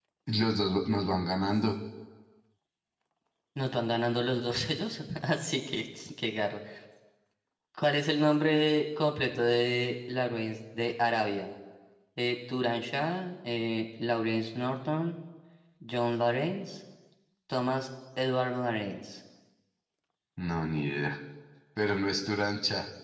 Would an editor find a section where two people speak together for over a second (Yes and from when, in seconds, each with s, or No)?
No